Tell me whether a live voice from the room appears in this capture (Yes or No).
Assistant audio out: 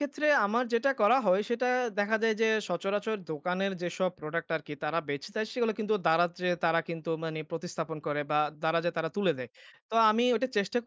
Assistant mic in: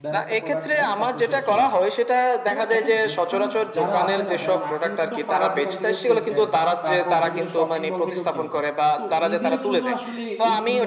Yes